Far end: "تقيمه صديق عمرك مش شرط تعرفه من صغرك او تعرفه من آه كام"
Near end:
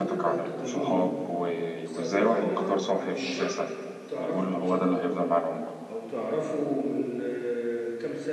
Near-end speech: present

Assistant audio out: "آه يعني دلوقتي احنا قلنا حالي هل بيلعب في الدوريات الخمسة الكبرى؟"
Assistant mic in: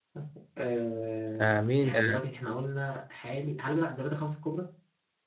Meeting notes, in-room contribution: present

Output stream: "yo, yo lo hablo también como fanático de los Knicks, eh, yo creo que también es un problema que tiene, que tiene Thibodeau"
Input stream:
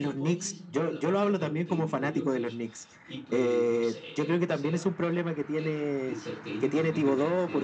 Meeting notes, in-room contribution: present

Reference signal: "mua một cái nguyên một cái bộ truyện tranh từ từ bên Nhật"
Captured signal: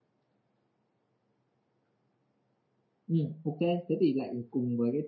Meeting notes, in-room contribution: present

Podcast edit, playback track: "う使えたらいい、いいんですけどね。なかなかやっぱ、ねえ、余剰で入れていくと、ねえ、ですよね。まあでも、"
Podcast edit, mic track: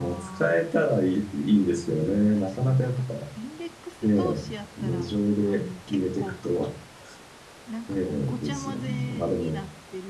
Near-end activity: present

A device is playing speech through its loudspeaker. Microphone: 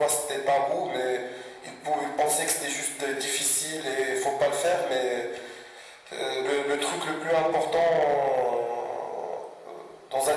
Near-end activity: none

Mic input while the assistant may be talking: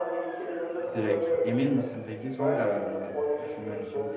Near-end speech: present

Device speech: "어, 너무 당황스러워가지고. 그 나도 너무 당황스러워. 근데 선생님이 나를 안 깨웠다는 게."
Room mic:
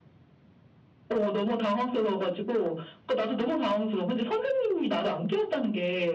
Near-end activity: none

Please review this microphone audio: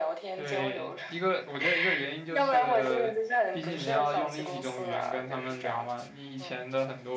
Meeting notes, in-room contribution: present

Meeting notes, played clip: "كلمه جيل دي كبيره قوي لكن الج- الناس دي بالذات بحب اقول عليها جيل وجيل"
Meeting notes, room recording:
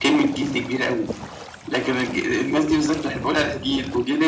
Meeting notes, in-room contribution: none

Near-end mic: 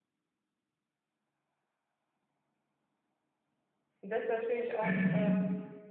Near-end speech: present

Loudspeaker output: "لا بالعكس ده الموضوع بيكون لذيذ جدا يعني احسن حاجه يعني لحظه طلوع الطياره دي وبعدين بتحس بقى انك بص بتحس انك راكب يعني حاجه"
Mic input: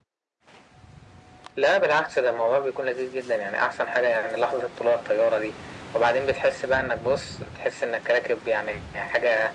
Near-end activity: none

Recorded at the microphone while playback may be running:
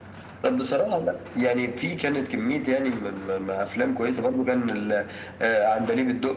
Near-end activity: none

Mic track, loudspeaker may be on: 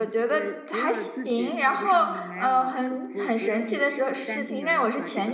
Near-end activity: present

